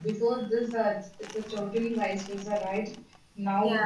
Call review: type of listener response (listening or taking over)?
listening